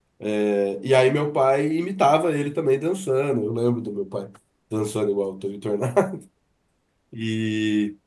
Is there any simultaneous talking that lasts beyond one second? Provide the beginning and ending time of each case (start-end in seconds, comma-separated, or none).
none